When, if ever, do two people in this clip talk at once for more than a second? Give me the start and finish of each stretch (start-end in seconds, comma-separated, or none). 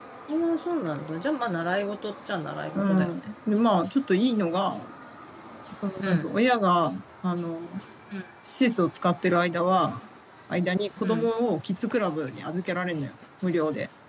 none